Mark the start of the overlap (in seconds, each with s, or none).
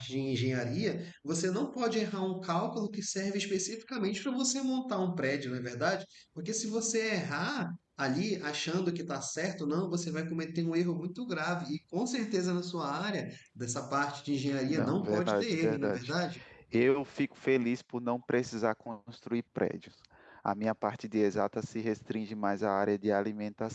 14.7 s